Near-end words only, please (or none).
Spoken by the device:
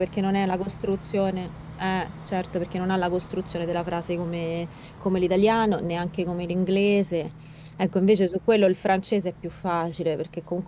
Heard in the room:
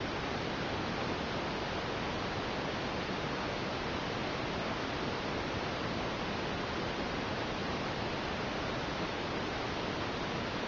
none